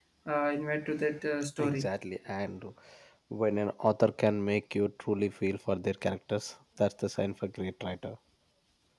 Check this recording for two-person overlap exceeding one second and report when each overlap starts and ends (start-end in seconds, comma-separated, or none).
none